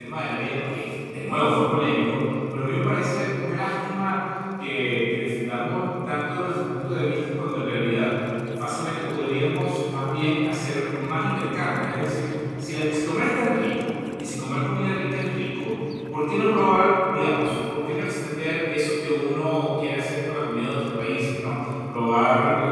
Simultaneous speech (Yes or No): No